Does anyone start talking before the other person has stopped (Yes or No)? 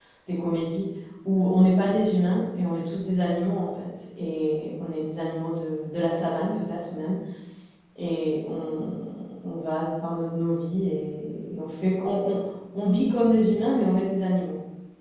No